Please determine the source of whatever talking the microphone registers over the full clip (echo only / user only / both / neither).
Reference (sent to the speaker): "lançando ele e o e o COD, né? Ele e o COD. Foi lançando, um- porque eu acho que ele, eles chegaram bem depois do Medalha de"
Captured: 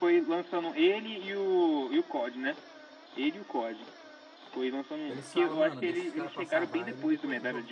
both